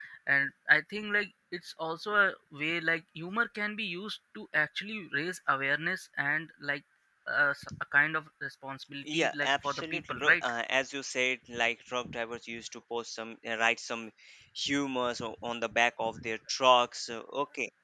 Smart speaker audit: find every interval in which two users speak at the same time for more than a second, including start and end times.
9.1-10.3

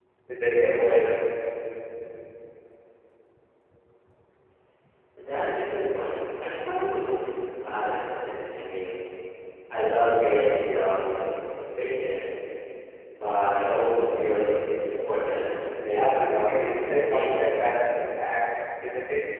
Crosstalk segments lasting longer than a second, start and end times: 15.9-17.3

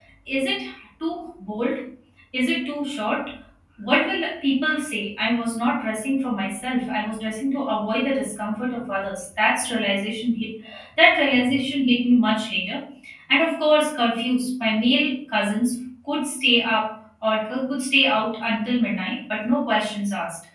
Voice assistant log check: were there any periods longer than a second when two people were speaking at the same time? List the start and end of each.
none

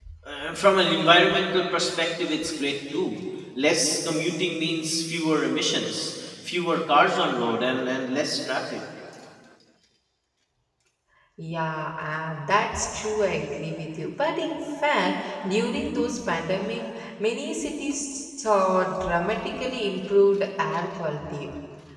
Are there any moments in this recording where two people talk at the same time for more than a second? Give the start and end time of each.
none

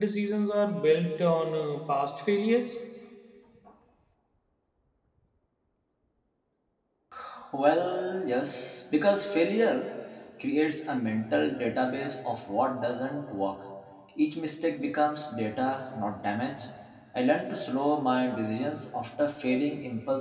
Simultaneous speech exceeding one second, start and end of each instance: none

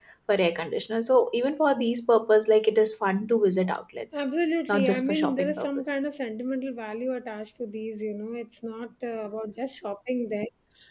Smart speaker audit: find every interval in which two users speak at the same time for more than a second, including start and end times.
4.7-5.9

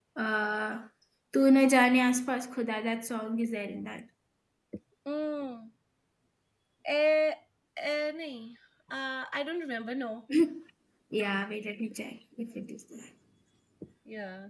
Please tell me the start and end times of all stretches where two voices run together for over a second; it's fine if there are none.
none

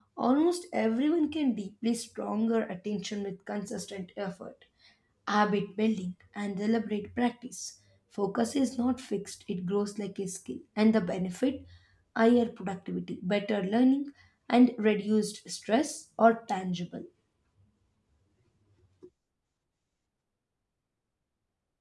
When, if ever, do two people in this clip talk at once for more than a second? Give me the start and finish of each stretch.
none

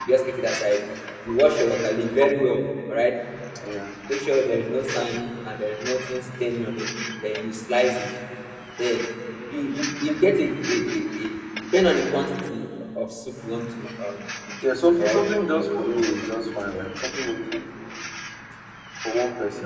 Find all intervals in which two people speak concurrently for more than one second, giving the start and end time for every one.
14.6-15.9

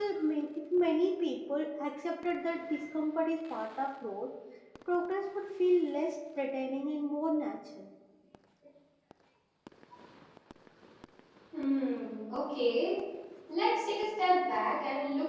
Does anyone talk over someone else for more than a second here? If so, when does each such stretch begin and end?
none

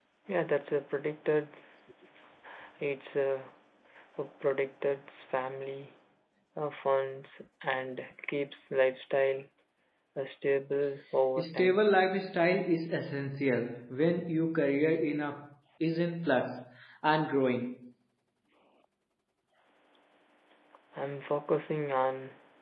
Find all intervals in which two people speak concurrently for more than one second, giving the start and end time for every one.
none

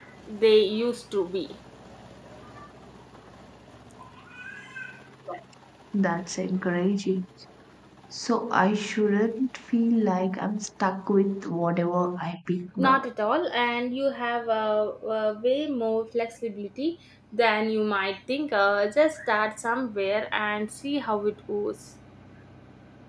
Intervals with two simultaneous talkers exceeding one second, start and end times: none

